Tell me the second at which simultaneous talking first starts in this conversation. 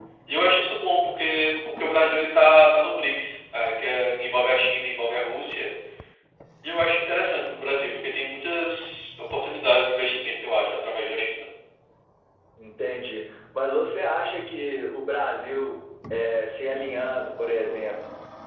none

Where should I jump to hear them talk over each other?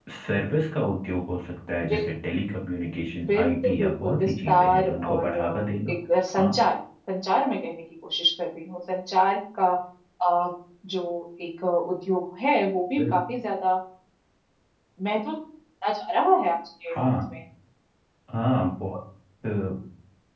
3 s

